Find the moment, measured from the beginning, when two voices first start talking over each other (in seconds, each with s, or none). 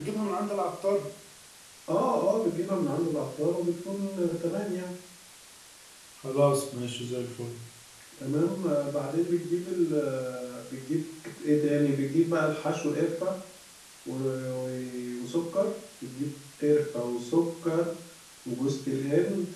none